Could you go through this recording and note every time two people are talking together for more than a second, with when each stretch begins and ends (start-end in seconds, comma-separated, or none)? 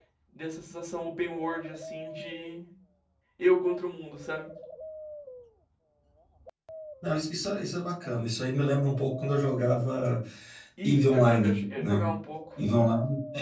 10.8-12.1